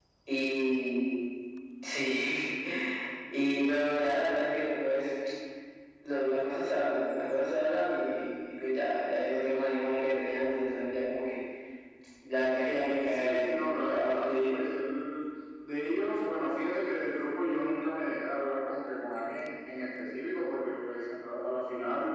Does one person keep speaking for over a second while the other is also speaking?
Yes, from 13.1 s

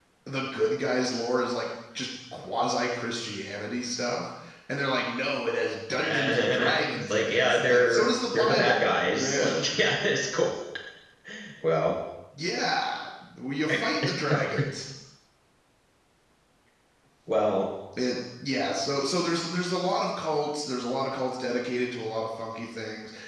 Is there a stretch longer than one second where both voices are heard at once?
Yes, from 6.0 s

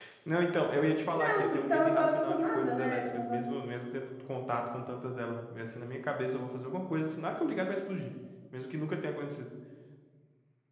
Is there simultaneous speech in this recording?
Yes, from 1.2 s

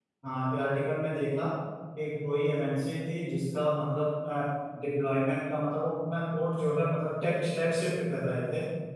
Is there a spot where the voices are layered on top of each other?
No

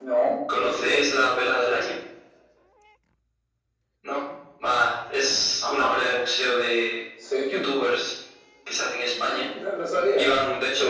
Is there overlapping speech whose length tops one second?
No

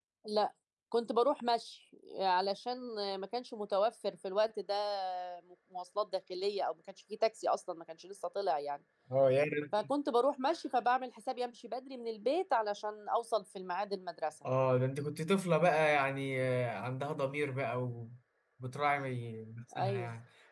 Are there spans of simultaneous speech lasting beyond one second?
No

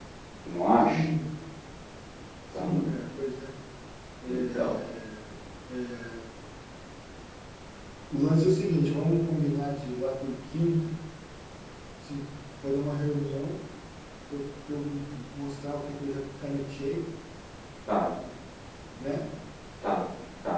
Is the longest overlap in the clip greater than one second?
No

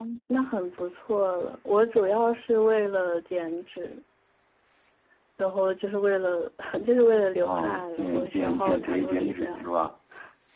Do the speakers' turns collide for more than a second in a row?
Yes, from 7.4 s

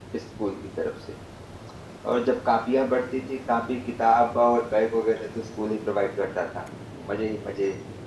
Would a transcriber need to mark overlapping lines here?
No

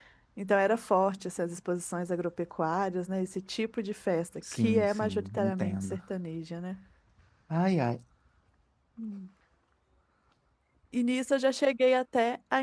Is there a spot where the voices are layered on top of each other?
Yes, from 4.4 s

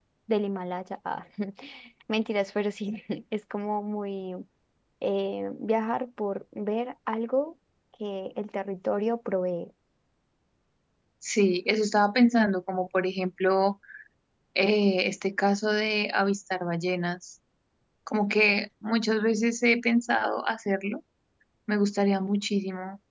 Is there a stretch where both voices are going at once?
No

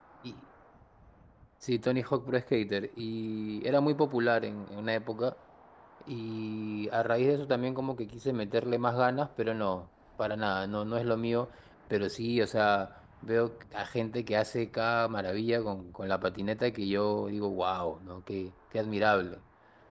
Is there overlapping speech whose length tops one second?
No

